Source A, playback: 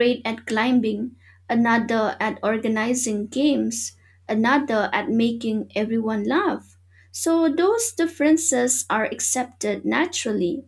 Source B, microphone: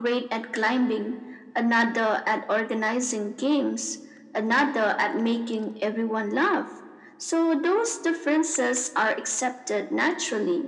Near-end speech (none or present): none